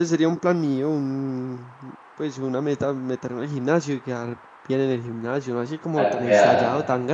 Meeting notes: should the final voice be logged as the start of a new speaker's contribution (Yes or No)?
No